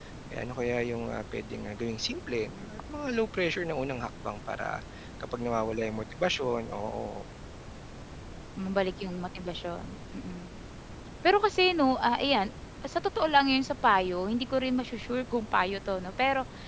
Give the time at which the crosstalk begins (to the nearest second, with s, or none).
none